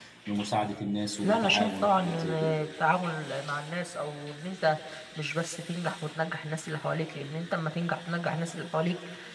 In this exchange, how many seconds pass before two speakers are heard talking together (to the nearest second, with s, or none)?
1 s